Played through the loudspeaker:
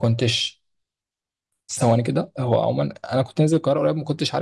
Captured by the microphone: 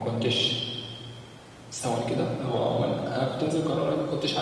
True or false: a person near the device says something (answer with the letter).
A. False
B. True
A